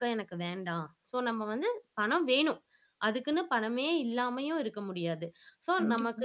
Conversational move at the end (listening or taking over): listening